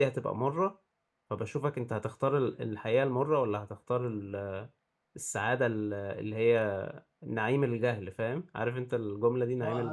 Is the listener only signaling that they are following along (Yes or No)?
No